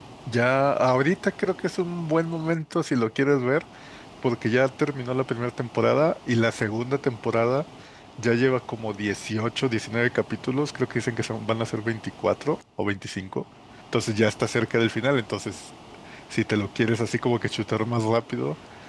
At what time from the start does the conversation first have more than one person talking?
none

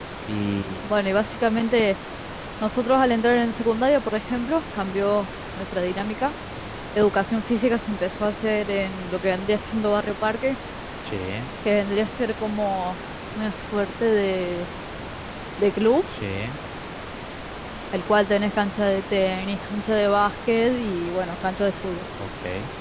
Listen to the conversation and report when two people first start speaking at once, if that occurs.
none

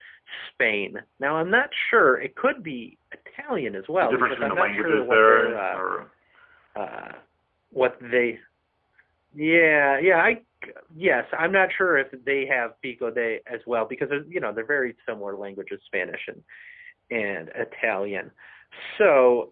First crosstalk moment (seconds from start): 4 s

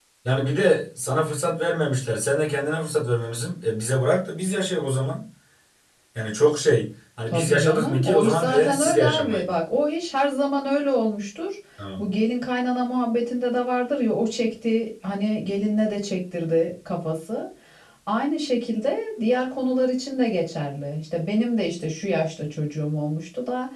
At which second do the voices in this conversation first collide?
7 s

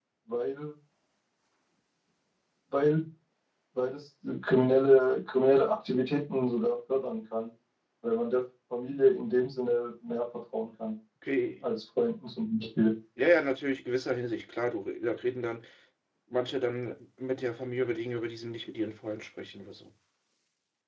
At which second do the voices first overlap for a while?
none

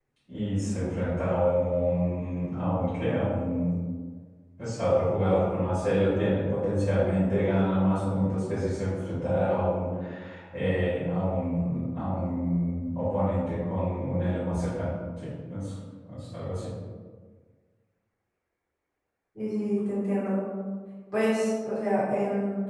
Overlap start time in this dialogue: none

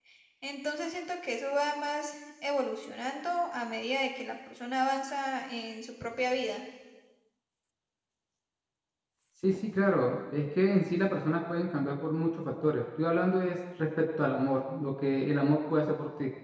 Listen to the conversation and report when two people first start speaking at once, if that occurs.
none

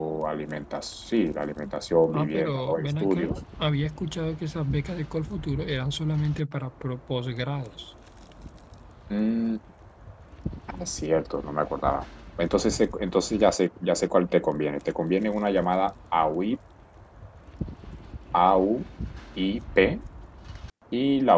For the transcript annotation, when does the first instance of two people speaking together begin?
2 s

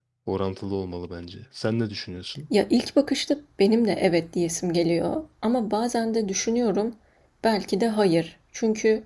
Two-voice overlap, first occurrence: none

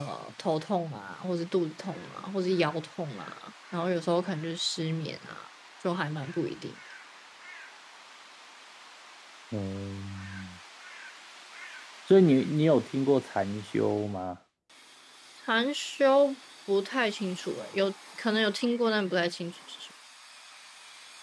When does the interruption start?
none

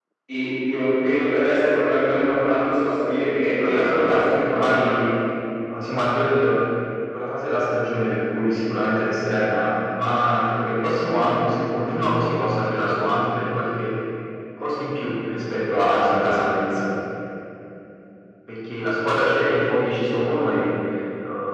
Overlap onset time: 4 s

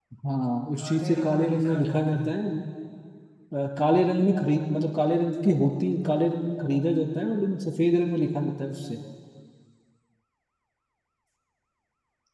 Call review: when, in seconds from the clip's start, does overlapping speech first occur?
1 s

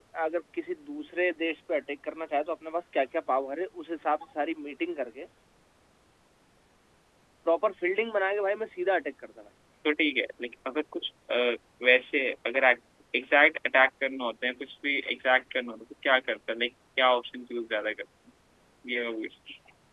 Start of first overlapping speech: none

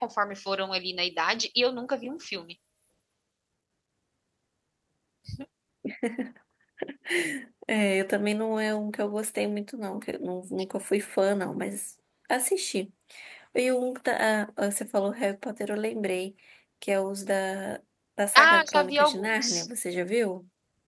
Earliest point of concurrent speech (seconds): 18 s

